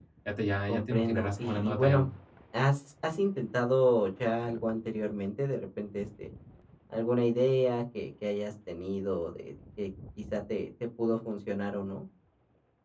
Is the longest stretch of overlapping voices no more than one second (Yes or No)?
No